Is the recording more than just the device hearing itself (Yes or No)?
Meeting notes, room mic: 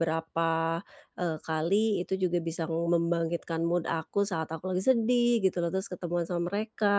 Yes